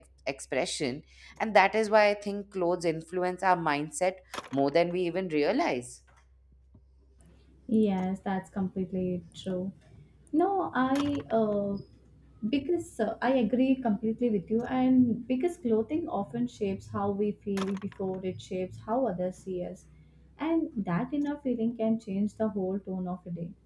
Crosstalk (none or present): none